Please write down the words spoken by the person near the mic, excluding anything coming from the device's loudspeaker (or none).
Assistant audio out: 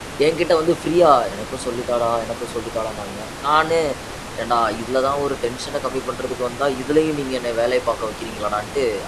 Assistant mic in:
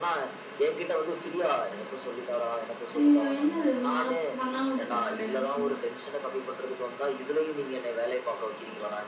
ஐய்யயோ! என்னது இவ்வளோ நாள் பண்ணாம விட்டுட்டோமே அப்படின்னு நினைச்சீங்களா?